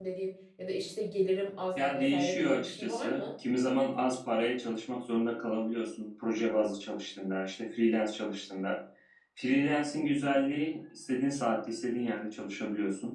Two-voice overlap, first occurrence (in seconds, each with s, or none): 1.8 s